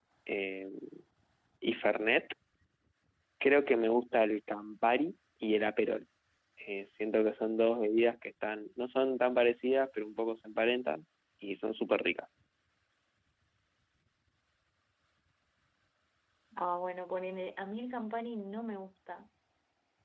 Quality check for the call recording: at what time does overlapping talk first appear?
none

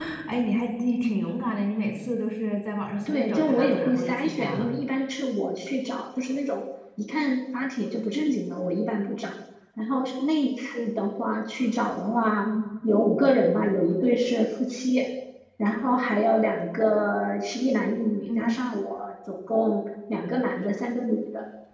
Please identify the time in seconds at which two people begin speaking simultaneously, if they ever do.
3.1 s

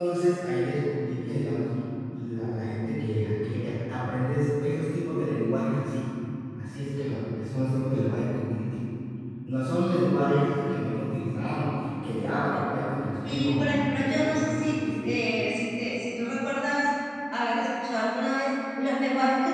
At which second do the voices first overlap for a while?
13.2 s

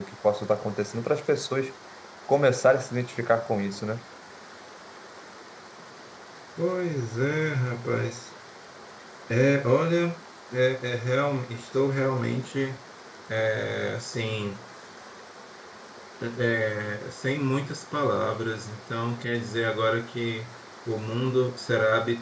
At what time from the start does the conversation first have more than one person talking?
none

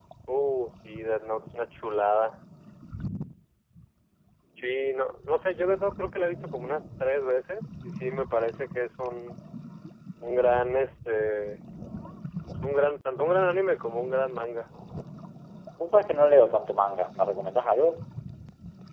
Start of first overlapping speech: none

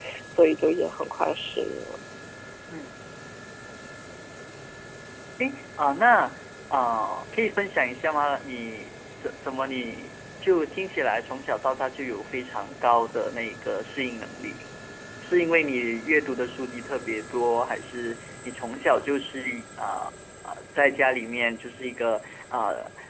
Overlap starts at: none

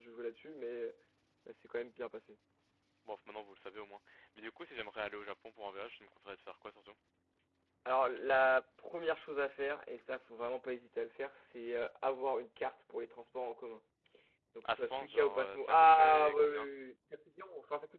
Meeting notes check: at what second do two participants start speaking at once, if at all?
14.7 s

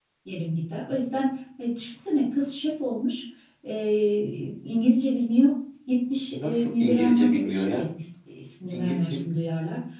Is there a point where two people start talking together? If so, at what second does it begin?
6.3 s

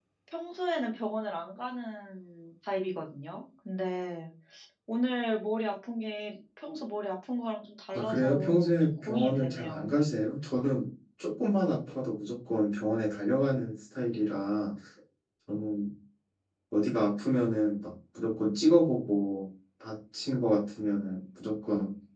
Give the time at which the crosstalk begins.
7.9 s

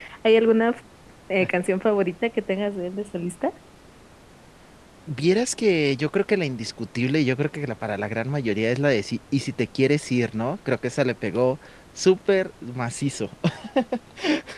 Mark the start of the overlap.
none

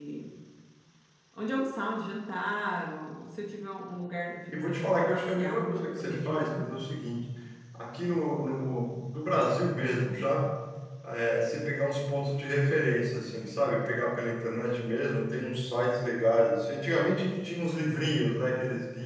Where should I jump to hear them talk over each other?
4.5 s

